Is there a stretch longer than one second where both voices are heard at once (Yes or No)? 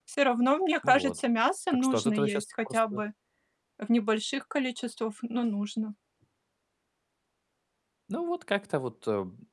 Yes